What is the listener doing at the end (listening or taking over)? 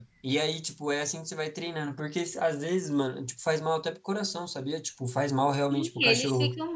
taking over